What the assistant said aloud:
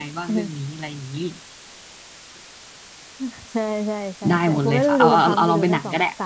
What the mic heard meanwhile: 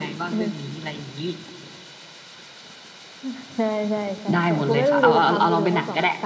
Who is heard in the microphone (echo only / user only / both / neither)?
echo only